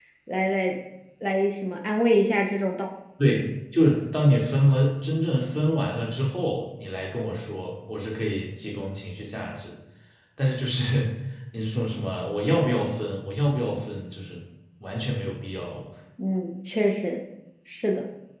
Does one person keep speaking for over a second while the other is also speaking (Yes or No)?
No